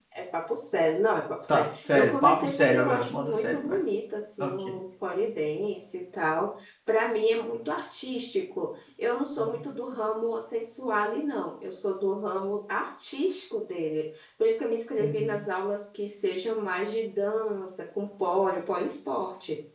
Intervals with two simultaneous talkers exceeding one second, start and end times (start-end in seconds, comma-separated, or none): 1.5-3.8